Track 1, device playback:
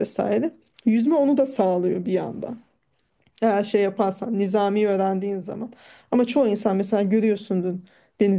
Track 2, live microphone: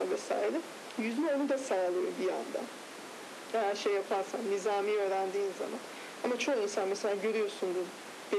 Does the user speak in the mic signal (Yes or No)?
No